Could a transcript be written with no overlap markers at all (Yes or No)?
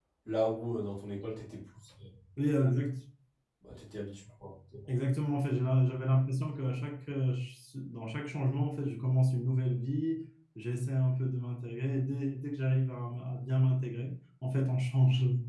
Yes